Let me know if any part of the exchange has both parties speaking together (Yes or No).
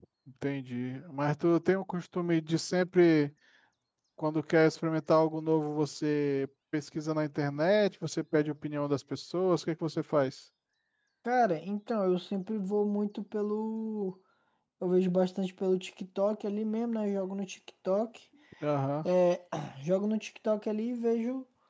No